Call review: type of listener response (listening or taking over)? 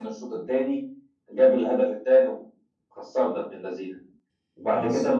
listening